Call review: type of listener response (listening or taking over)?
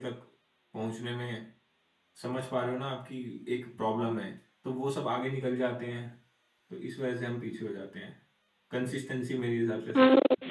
taking over